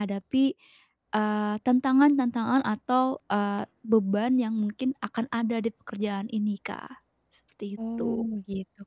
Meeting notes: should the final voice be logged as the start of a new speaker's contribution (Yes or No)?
Yes